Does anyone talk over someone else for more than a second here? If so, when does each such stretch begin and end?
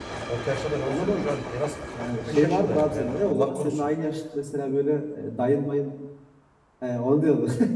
2.0-3.9

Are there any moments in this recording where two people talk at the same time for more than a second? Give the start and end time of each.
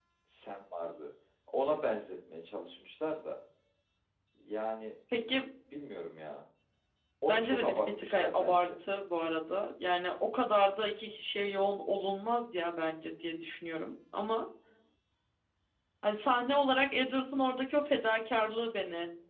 7.3-8.7

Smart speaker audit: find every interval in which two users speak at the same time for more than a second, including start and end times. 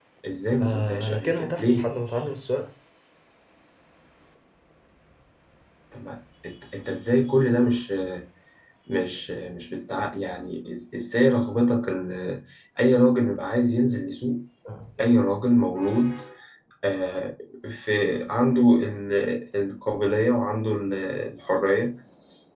0.6-1.9

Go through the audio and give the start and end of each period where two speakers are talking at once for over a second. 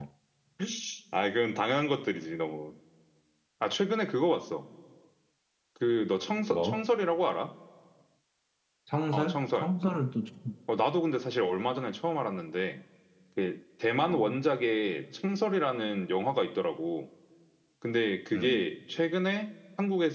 none

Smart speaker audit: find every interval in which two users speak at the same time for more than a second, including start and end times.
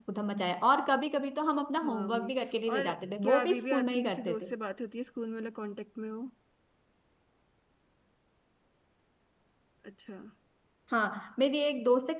2.7-4.5

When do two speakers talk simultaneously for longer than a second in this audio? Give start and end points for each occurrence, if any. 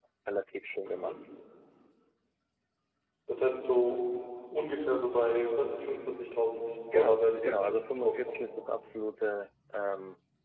6.9-8.4

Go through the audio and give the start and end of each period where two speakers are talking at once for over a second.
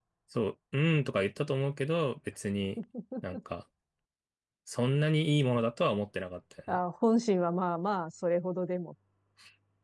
none

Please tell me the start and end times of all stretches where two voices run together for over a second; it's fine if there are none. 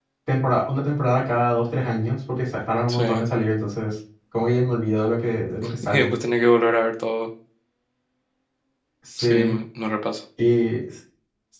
none

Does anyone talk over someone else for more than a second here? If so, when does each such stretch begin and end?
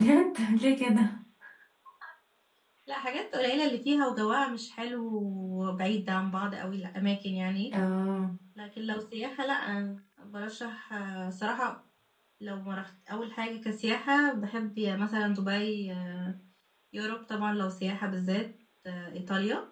none

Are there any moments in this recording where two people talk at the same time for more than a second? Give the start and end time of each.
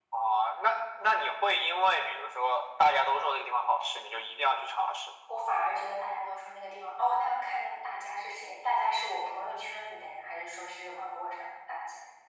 none

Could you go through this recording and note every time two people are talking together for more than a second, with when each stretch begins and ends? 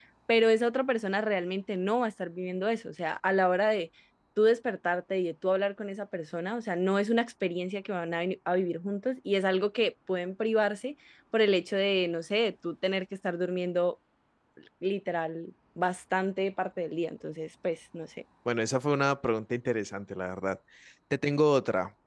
none

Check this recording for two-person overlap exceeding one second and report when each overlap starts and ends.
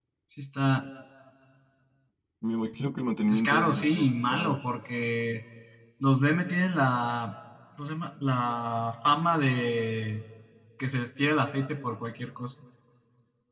3.3-4.6

